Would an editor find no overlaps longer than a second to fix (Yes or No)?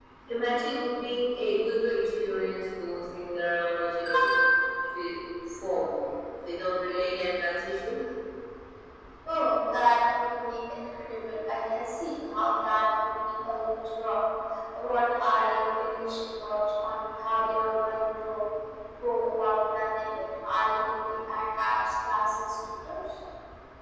Yes